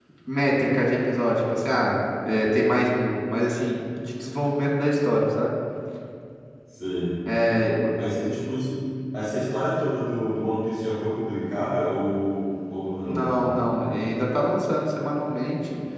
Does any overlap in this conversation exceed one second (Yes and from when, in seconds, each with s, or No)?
No